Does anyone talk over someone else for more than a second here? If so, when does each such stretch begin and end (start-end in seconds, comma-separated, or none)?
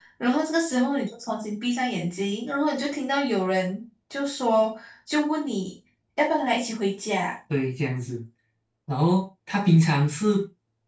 none